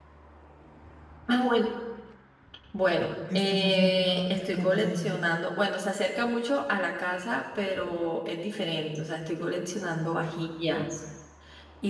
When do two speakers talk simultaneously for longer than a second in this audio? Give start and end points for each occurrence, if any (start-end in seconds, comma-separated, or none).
3.4-5.2